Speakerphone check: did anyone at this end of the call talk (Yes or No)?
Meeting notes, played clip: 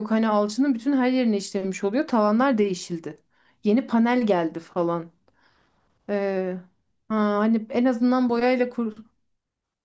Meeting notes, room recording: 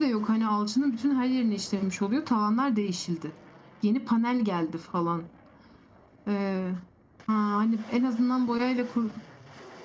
No